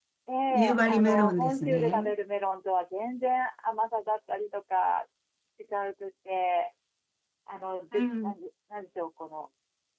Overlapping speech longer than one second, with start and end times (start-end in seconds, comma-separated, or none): 0.5-2.1